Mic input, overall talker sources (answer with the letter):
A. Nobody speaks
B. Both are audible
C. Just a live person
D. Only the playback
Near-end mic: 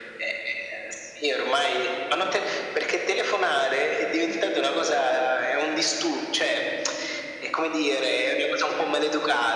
D